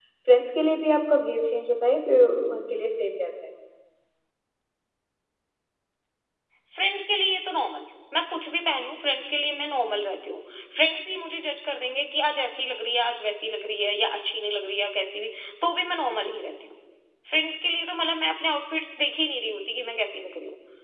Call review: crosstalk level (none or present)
none